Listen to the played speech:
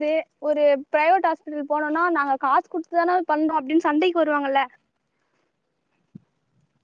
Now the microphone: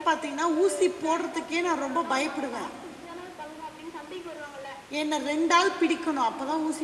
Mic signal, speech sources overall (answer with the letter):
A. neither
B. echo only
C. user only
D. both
D